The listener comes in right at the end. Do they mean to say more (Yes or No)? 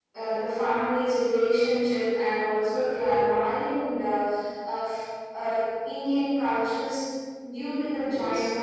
No